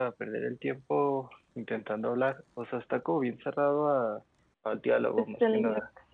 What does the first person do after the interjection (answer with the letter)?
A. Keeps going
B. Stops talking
B